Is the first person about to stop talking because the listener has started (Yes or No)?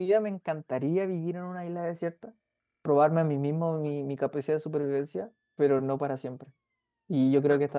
No